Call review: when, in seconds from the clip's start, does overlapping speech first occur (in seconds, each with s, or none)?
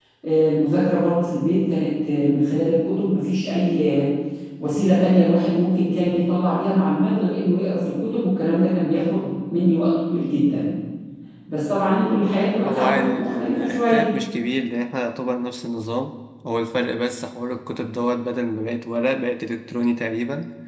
12.6 s